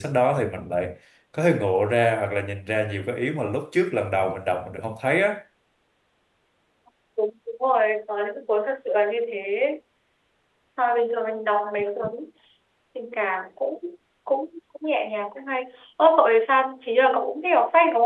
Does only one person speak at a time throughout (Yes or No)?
Yes